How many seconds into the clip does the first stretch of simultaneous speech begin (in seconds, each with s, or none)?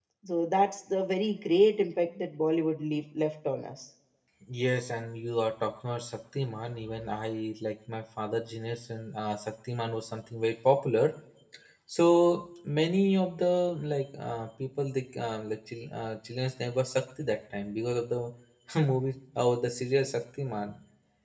none